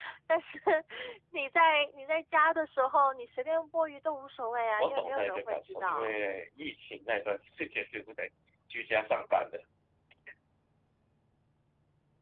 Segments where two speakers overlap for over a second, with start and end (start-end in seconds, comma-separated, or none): 4.8-6.1